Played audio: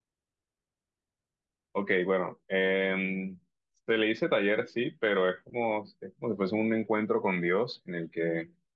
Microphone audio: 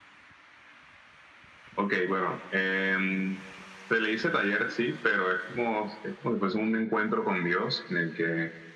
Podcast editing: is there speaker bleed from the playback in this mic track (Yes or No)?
Yes